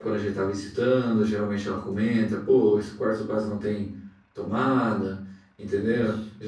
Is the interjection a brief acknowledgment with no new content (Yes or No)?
Yes